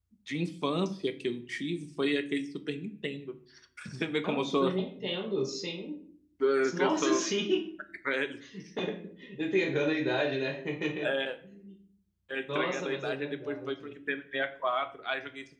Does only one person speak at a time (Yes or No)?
No